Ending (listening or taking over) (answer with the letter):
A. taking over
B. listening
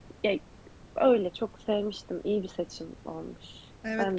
A